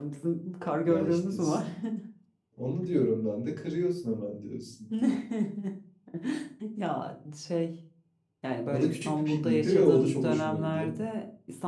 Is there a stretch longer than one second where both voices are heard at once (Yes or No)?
Yes